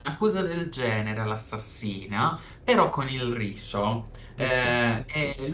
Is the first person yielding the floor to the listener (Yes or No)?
No